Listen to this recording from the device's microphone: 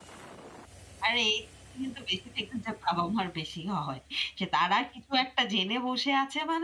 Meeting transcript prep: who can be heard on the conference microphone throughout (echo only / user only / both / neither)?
user only